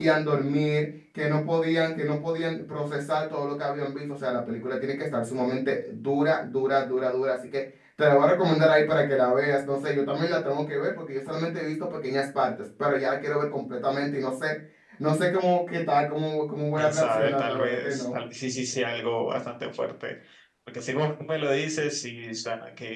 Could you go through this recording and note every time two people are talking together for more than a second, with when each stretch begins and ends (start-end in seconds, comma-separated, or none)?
16.8-18.1